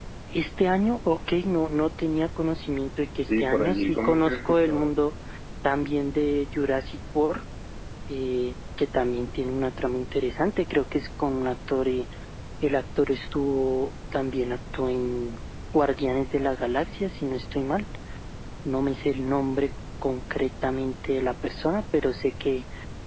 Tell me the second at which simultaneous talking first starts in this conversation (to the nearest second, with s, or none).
3 s